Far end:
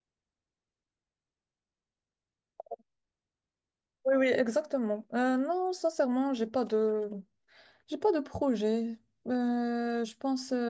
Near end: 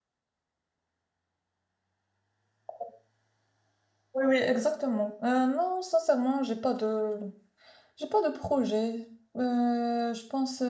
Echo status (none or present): present